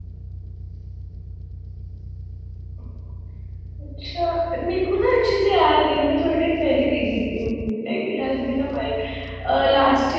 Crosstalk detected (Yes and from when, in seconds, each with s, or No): No